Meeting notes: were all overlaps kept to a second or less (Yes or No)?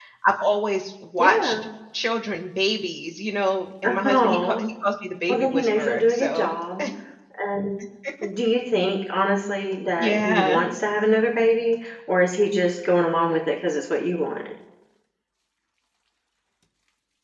No